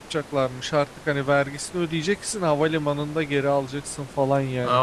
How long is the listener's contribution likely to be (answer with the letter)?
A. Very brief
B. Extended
B